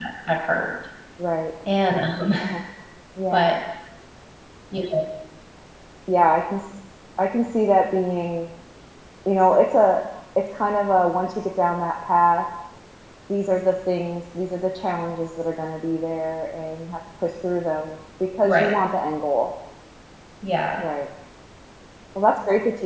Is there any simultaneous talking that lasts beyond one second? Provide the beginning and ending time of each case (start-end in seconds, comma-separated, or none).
none